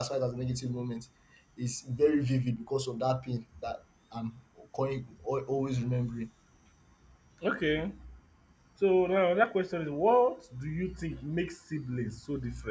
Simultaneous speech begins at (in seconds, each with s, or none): none